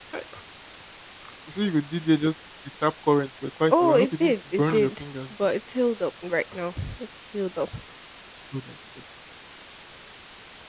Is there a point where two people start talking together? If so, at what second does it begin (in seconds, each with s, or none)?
3.7 s